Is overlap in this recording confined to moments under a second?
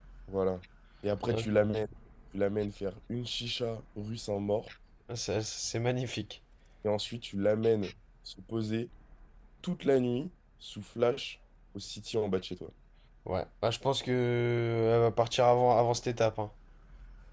Yes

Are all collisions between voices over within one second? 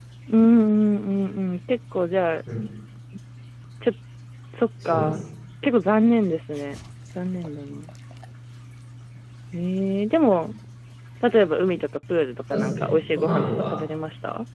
No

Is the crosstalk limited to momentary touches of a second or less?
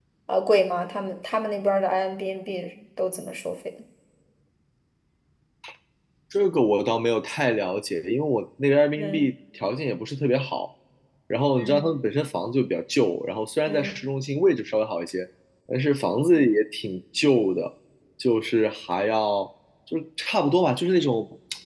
Yes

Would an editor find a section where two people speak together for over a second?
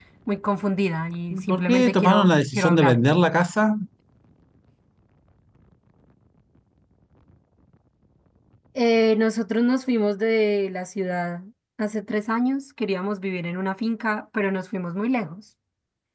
Yes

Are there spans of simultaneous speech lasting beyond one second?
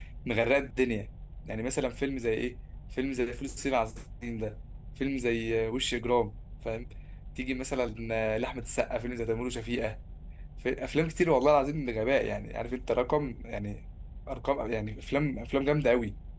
No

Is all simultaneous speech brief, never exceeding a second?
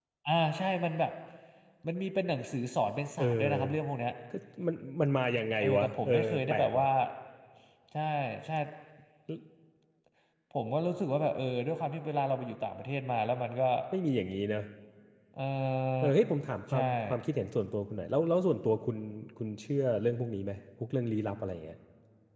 No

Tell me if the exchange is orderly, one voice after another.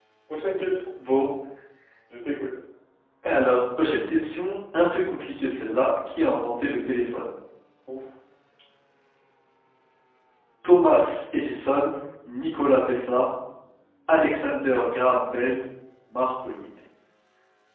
Yes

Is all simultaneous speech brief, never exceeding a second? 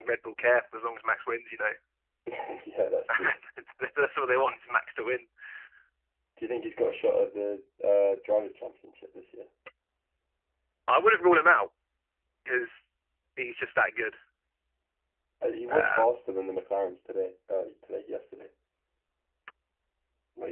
Yes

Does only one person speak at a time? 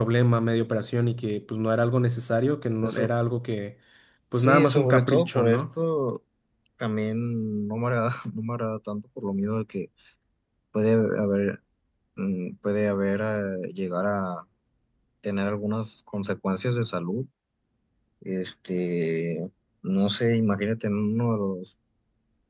No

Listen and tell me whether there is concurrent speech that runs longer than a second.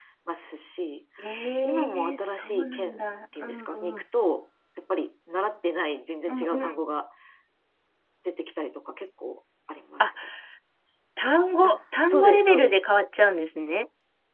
Yes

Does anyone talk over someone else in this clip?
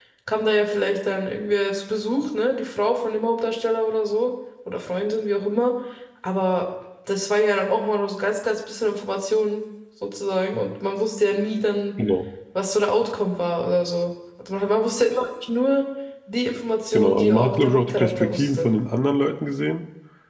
Yes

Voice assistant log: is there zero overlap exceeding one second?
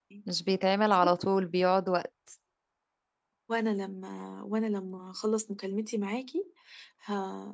Yes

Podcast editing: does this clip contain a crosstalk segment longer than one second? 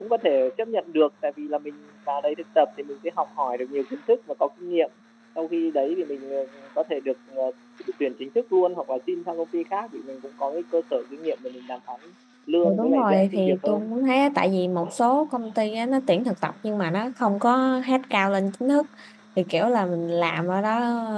Yes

